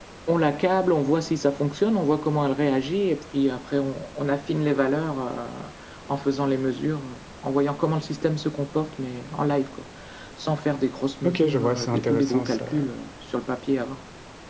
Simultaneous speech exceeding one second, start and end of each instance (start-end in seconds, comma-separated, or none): 11.2-12.9